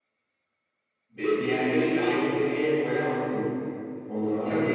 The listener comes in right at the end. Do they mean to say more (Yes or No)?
No